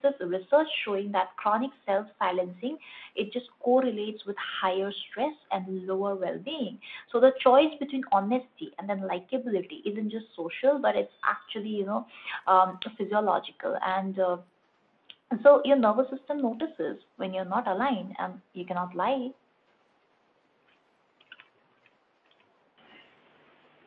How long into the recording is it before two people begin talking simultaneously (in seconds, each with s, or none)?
none